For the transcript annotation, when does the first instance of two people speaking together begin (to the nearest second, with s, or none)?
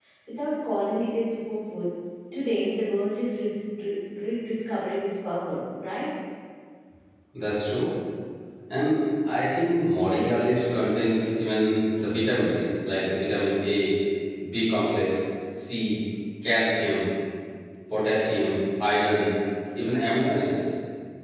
none